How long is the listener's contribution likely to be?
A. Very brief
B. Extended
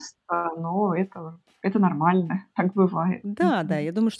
B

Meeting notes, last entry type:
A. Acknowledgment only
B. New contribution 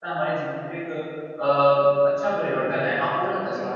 B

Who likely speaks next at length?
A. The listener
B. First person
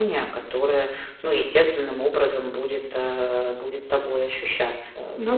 A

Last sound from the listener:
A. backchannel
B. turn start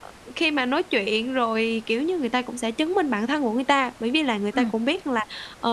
A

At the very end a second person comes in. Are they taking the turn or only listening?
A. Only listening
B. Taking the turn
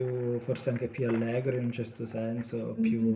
B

